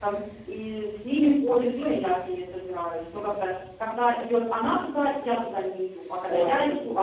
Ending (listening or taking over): taking over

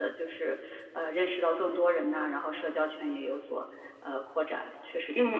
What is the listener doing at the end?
taking over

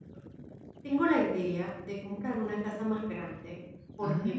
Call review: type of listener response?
listening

